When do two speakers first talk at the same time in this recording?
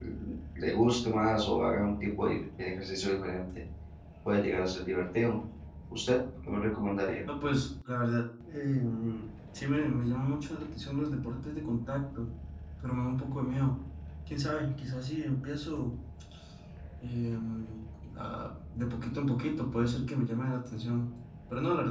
none

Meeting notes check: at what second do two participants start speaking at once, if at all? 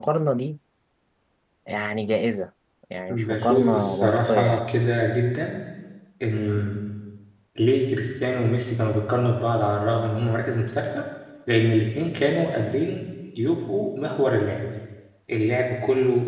3 s

